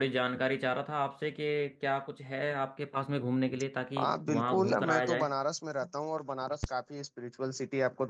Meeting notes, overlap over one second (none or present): present